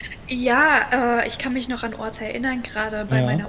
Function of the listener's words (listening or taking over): listening